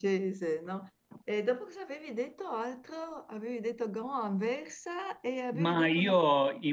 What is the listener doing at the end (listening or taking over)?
taking over